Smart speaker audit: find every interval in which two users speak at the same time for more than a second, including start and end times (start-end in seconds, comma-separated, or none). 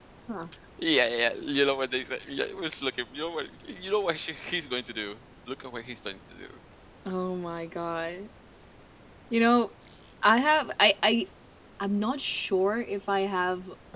none